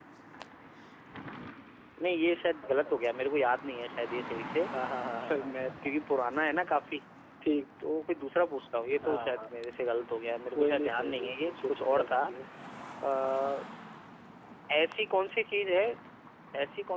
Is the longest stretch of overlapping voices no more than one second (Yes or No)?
No